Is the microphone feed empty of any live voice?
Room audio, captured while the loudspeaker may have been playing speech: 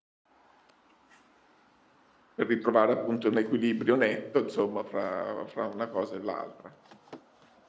No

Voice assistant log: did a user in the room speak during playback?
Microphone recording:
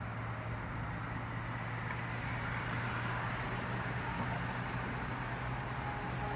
No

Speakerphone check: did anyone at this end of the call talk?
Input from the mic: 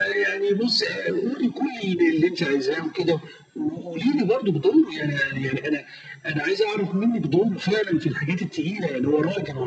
No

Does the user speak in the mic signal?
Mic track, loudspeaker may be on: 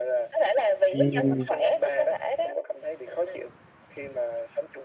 Yes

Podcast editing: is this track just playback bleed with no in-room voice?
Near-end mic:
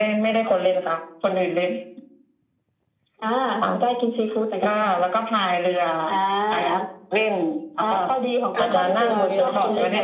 No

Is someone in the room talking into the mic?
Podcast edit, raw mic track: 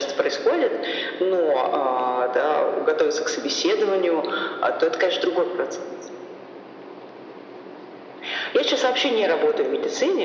No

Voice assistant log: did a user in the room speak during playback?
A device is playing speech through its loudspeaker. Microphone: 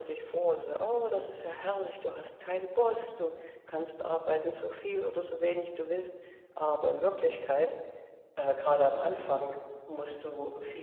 No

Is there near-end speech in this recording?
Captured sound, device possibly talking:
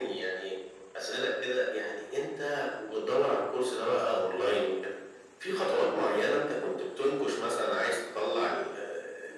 No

